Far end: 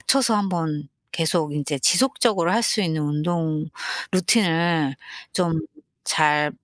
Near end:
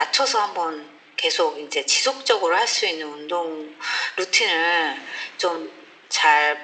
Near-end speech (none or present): none